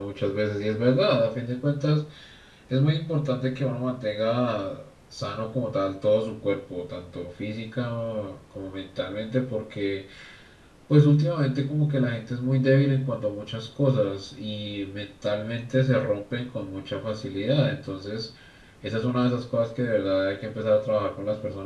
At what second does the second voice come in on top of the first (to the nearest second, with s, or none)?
none